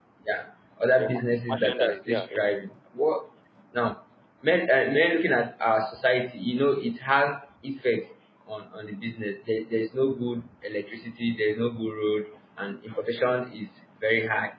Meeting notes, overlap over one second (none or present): present